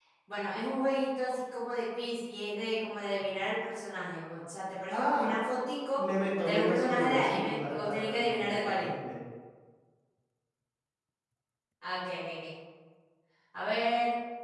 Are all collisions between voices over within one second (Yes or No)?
No